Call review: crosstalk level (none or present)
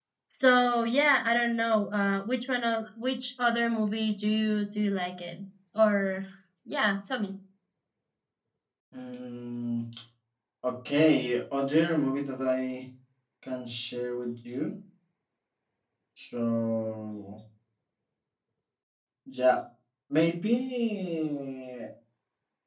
none